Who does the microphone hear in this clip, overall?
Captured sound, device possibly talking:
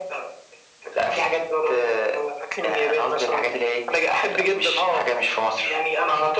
echo only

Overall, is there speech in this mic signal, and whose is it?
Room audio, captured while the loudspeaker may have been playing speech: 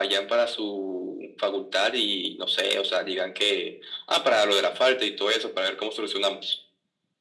echo only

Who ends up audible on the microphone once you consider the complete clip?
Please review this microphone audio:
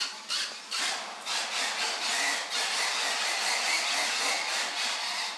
neither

